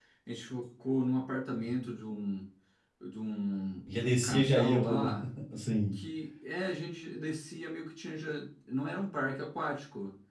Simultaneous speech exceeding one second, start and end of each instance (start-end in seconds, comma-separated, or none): 3.9-5.1